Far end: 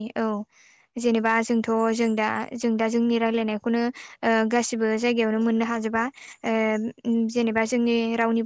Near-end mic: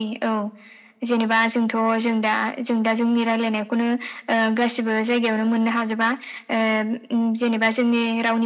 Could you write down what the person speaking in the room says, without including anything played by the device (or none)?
none